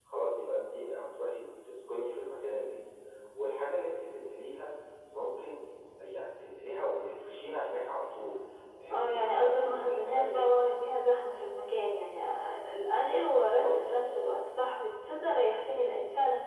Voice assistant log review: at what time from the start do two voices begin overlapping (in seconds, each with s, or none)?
8.9 s